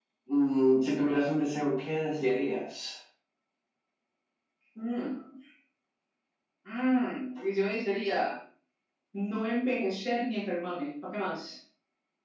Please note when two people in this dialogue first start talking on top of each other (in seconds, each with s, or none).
none